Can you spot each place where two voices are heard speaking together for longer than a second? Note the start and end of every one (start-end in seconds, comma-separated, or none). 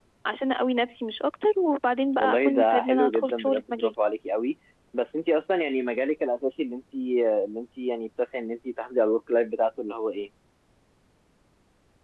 2.2-3.9